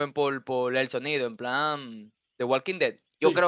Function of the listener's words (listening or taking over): listening